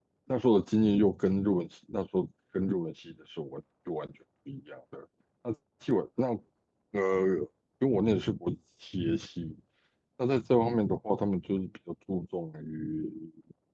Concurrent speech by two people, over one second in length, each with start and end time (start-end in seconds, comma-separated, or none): none